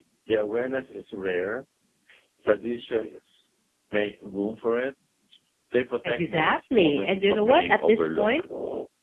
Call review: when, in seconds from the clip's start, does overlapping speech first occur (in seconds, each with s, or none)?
6.0 s